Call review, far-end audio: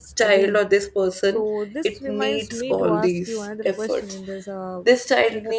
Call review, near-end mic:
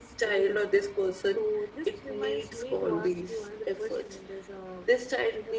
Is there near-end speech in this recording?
No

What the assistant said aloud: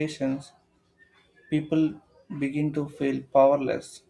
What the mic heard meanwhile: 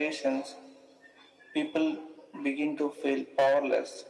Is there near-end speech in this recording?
No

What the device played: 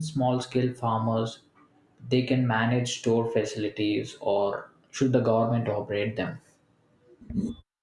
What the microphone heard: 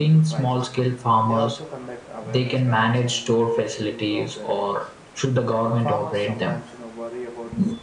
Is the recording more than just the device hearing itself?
Yes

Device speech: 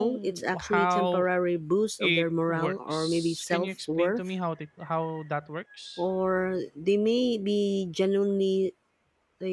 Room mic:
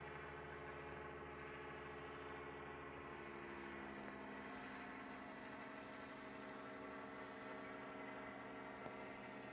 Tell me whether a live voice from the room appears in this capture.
No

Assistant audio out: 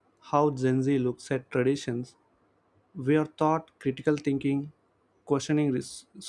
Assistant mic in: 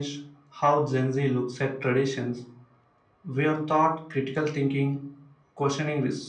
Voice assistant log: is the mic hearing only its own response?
Yes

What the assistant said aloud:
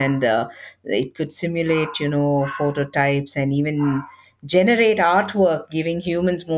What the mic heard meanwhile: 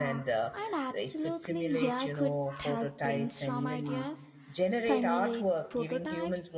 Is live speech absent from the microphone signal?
No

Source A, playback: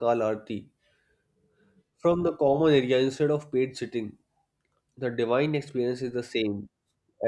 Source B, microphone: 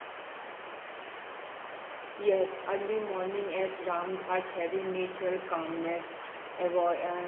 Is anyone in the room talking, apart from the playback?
Yes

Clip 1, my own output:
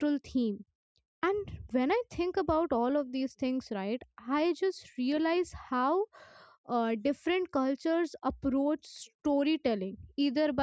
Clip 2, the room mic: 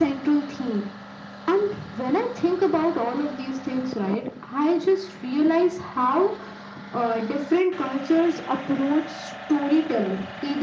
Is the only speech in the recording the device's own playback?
Yes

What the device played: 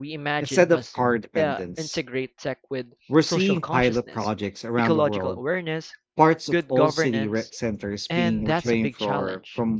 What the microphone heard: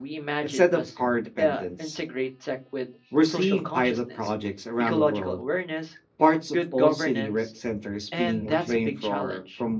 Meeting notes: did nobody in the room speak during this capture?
Yes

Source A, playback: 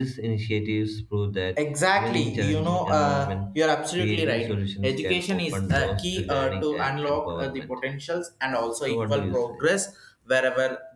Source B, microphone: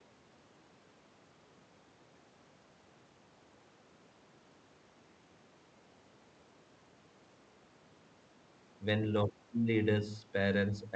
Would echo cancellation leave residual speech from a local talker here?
Yes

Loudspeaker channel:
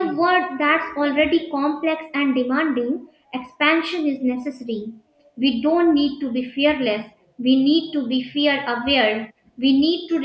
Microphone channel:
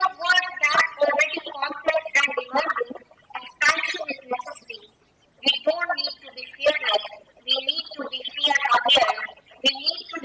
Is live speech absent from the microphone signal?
Yes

